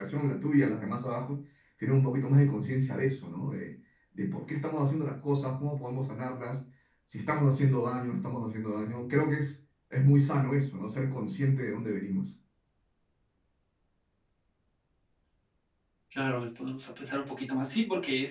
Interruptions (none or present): none